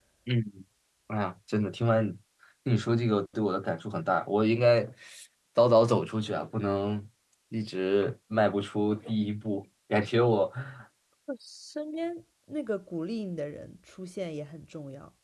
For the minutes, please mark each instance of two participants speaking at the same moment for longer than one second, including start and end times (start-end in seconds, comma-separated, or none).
none